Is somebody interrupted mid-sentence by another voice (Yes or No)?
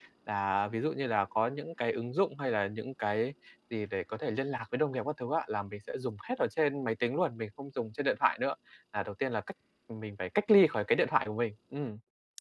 No